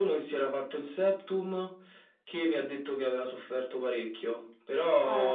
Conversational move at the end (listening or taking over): listening